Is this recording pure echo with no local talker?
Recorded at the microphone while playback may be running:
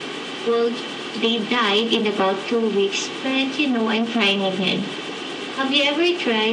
Yes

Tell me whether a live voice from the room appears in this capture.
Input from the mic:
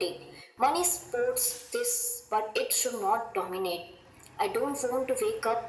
No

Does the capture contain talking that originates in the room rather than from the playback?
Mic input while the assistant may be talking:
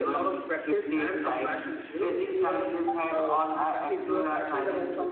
No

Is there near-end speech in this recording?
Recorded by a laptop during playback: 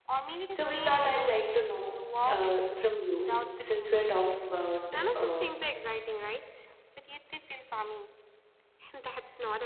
Yes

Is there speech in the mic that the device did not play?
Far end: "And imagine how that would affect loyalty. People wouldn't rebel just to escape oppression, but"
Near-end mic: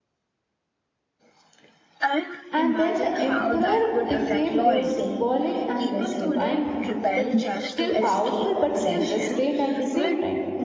Yes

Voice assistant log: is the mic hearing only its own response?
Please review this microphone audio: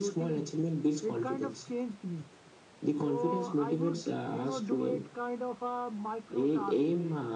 Yes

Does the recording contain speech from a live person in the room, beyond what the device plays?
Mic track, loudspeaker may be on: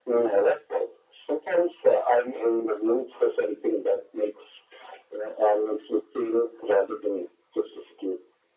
No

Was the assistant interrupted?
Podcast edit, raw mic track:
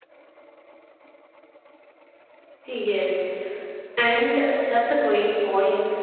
Yes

